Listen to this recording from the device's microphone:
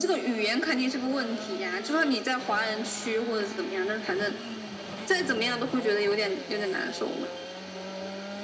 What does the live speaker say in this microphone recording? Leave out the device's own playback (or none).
none